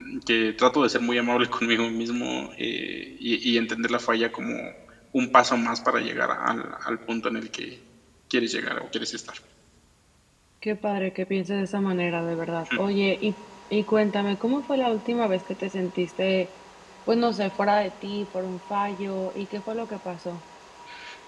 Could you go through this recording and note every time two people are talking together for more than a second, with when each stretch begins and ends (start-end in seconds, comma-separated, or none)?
none